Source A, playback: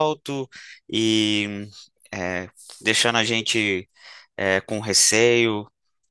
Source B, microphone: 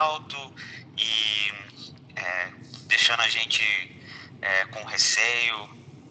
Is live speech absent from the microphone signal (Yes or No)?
Yes